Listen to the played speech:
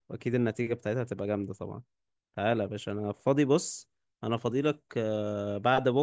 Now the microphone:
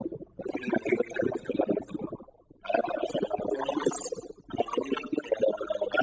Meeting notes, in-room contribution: none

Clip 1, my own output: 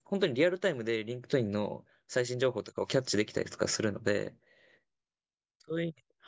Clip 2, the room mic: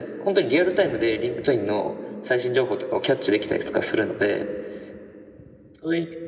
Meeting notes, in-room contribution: none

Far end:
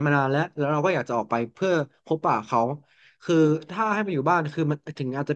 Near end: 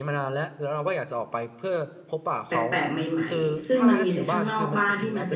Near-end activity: present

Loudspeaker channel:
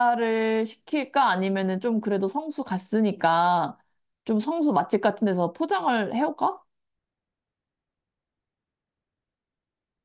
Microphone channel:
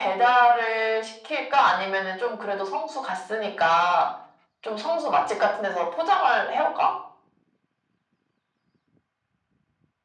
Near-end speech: none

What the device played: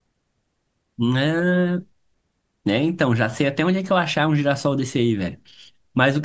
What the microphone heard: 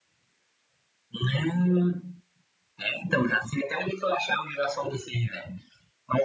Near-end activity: none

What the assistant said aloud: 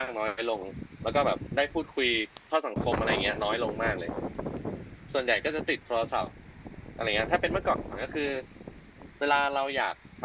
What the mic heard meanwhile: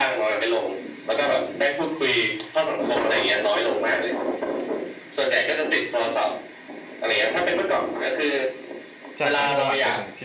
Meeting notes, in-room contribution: present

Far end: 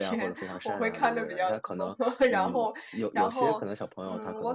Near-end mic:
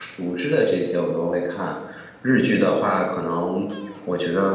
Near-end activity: present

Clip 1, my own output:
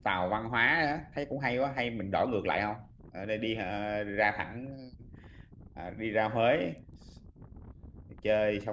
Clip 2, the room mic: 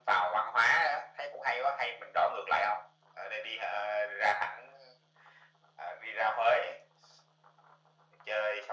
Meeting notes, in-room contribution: none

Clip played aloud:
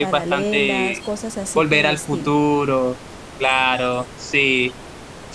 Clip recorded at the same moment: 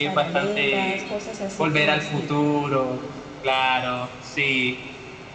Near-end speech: none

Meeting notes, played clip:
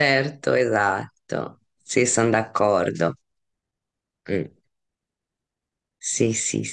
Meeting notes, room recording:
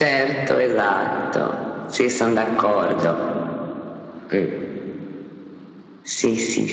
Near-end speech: none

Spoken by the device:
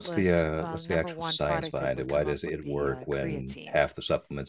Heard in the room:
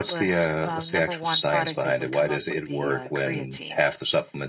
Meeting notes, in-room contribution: none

